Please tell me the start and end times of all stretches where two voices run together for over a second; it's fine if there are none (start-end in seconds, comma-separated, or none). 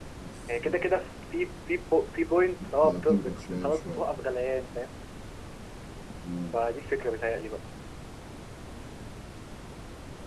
2.6-4.0